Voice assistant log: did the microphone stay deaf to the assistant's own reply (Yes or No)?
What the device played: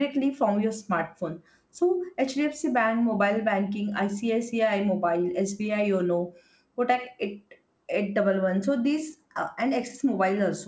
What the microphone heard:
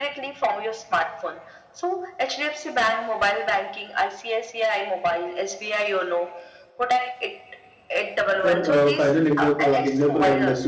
No